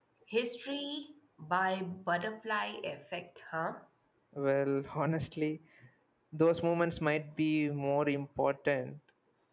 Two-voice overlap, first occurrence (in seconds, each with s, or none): none